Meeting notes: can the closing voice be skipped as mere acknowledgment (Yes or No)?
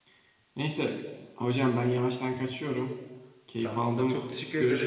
No